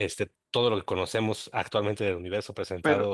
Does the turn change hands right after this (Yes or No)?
No